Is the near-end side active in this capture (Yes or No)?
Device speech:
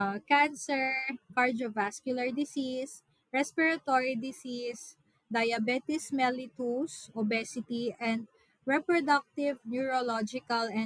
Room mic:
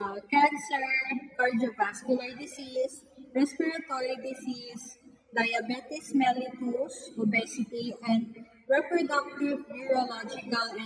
No